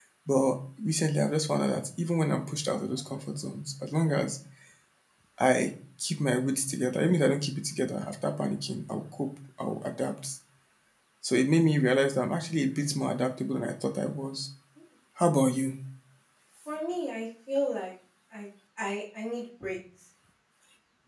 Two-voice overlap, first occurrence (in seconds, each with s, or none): none